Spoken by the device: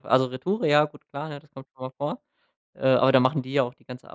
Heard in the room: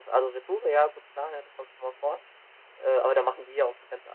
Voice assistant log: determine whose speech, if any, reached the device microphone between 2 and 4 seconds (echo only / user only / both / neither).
echo only